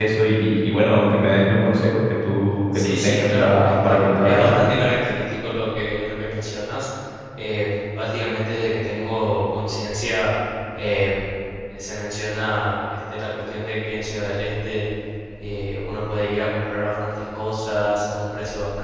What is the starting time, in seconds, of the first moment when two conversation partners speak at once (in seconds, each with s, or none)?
2.7 s